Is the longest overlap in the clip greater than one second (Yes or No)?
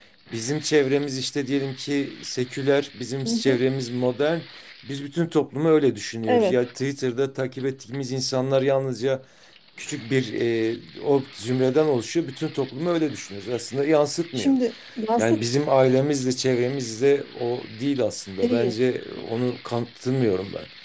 No